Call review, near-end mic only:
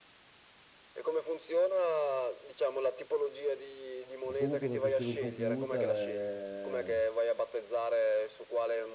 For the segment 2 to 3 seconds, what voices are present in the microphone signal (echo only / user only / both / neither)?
echo only